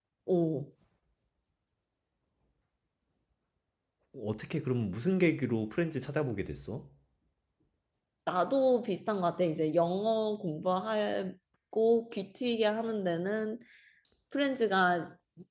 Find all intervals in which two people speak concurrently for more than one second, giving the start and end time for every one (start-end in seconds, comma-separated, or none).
none